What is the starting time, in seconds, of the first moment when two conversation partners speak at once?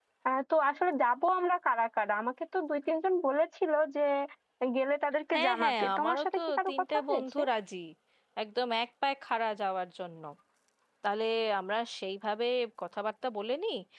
5 s

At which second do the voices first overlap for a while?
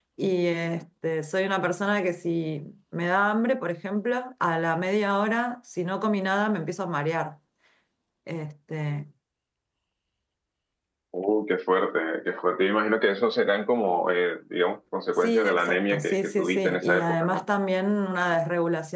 15 s

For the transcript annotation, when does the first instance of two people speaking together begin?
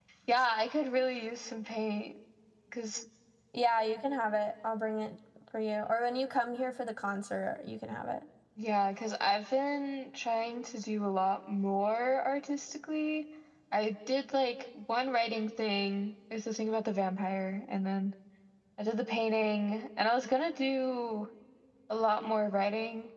none

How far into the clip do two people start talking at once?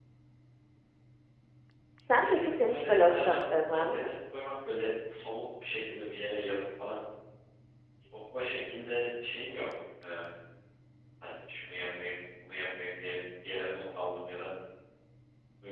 2 s

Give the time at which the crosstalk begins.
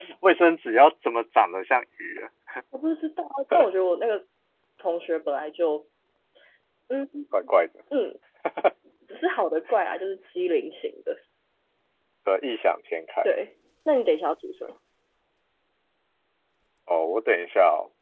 none

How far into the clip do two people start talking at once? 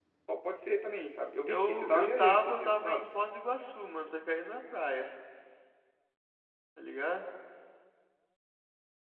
1 s

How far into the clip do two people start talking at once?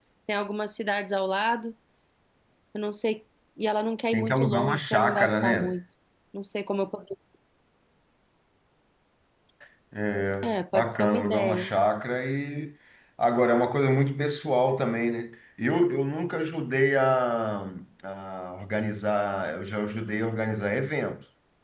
4 s

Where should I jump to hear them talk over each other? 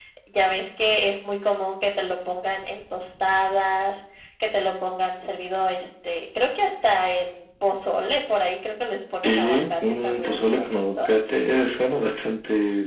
9 s

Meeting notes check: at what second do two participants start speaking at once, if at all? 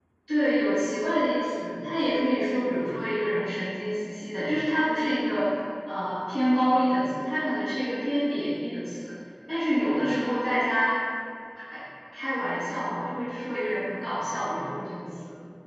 none

